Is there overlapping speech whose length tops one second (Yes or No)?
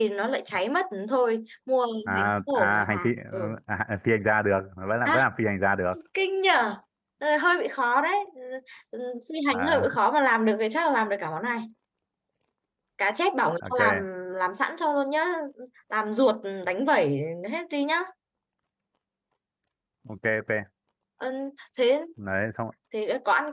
Yes